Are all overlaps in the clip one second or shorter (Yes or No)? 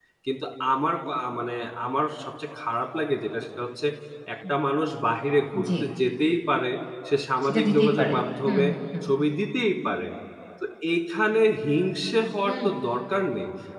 No